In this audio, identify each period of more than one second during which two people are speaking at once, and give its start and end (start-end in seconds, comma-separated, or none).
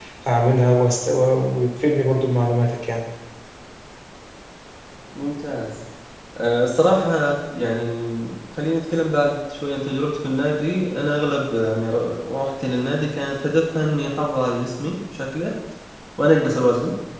none